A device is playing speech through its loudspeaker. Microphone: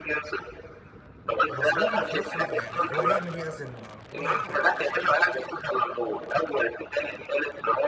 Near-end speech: present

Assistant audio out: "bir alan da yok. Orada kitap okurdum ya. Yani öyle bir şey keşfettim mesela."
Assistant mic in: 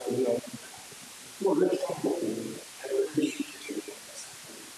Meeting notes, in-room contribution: none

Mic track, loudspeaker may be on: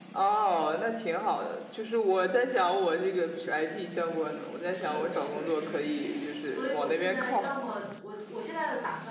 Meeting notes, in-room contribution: present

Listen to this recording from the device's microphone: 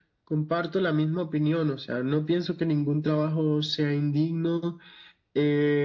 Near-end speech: none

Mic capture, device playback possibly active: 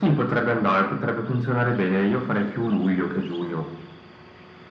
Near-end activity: none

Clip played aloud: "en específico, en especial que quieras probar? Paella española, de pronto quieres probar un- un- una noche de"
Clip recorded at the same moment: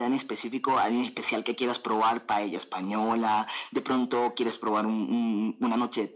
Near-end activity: none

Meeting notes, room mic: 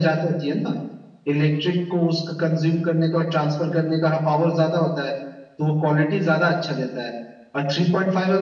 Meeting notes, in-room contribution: none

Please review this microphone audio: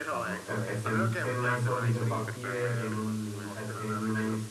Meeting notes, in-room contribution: present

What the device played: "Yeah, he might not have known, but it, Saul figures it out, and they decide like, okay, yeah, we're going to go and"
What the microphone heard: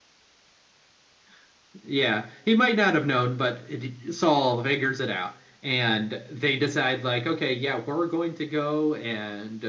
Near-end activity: none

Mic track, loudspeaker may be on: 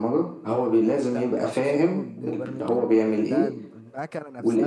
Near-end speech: present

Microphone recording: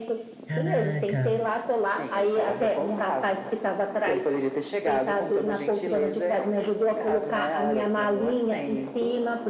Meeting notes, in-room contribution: present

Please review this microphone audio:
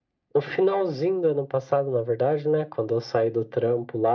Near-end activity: none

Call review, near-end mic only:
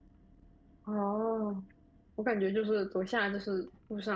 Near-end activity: present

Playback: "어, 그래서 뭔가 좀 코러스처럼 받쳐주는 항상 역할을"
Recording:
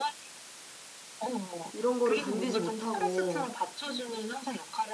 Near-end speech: present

